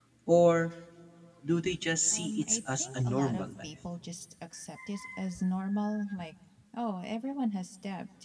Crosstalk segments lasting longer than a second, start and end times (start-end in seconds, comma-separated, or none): 2.1-3.7